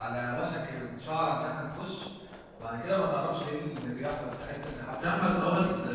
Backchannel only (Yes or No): No